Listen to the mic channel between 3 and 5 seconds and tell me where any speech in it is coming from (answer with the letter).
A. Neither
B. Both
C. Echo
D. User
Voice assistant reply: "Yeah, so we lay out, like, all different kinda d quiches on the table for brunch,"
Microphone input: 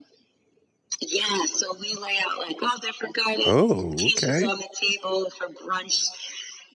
B